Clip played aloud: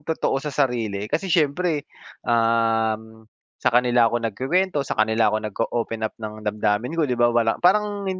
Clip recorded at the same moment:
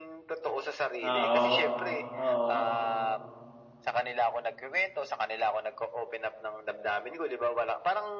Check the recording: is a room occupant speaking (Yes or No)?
Yes